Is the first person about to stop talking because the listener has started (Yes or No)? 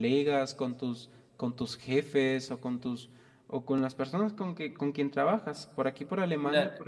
Yes